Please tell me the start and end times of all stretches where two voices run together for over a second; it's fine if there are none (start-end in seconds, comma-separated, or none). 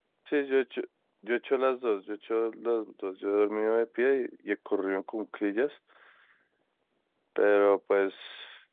none